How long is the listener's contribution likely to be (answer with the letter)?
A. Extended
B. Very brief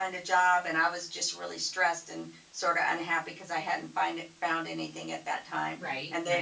B